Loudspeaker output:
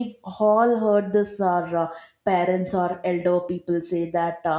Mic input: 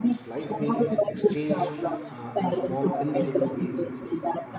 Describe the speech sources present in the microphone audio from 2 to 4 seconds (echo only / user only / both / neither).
both